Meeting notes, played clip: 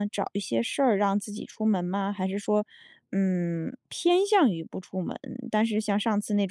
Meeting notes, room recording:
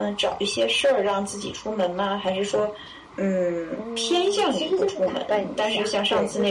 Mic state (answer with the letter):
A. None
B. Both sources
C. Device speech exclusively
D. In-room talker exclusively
B